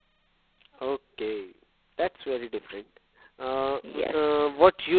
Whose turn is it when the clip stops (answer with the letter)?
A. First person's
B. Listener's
A